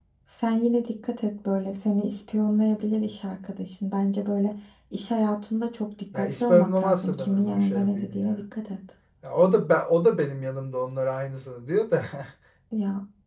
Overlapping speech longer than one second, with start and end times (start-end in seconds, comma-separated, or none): 6.2-8.4